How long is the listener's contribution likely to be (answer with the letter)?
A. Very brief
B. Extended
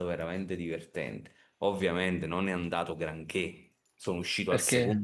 A